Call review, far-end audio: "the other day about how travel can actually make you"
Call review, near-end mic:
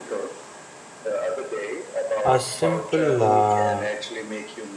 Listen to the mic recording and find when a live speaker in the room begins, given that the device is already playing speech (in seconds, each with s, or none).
2.3 s